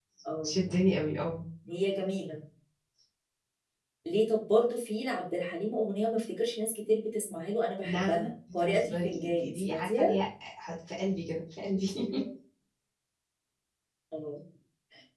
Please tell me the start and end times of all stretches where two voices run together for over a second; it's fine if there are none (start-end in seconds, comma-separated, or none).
7.8-10.2